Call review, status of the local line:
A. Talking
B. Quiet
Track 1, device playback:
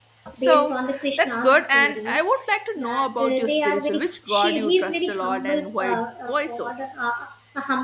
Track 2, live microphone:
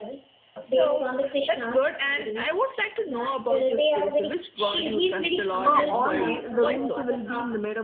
A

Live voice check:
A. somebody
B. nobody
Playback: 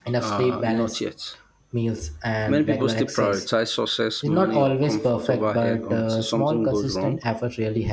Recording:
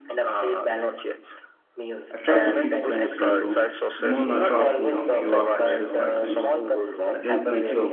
A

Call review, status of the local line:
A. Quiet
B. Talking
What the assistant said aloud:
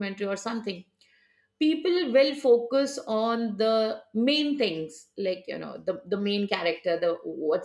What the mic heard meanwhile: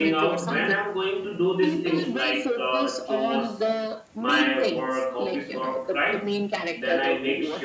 B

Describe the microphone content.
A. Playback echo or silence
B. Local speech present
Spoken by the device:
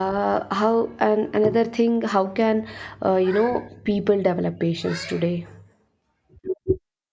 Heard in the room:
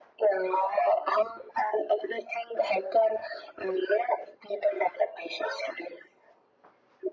A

